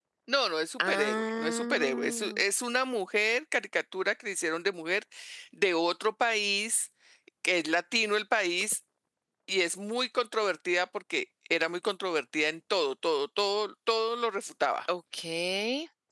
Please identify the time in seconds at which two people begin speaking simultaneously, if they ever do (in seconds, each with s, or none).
0.9 s